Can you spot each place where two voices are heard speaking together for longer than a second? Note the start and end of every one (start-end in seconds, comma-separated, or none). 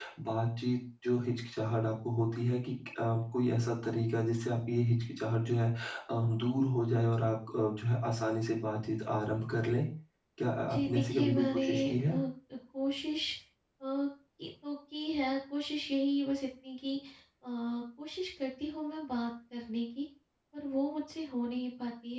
10.6-12.1